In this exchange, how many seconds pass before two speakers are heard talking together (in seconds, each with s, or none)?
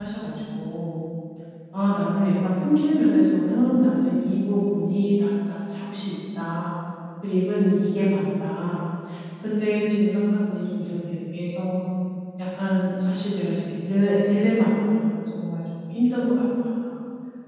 none